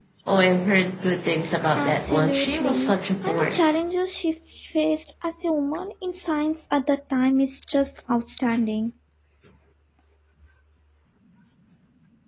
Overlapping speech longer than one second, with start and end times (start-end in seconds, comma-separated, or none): 1.8-3.8